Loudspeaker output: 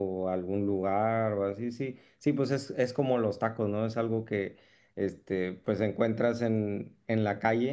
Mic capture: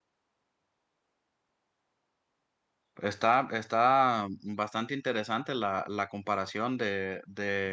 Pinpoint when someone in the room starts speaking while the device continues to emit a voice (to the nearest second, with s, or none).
3 s